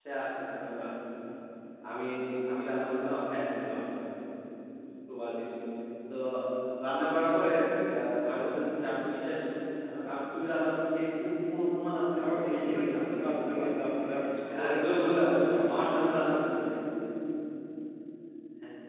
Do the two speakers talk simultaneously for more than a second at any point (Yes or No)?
Yes